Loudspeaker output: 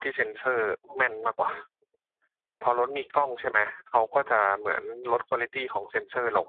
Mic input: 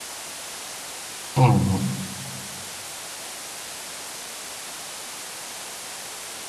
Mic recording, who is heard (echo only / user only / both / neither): user only